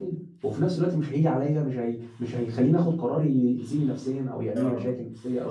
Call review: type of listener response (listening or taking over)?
taking over